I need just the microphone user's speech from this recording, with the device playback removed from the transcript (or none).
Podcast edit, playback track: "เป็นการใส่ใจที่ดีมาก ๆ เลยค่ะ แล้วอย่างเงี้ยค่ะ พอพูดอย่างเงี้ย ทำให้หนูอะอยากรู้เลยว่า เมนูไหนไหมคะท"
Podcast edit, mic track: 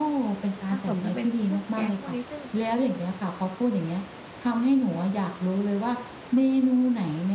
ผสมกันเป็นเครื่องแกงพวกนี้ ซึ่ง